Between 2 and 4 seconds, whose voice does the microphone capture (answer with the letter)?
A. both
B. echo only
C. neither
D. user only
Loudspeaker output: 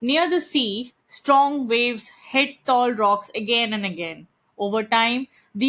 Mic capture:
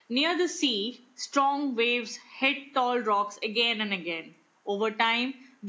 B